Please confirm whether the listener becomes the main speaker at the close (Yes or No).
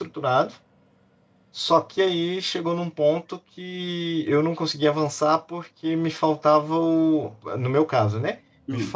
No